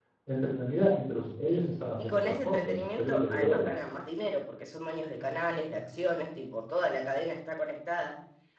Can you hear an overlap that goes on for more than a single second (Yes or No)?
Yes